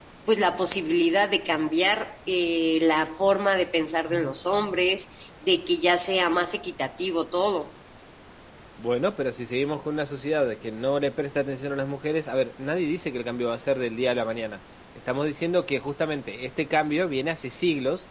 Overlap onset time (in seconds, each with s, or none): none